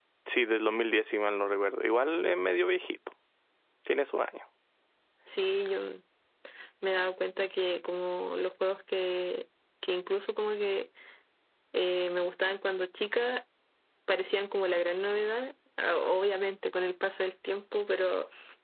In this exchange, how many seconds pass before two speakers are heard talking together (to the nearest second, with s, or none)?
none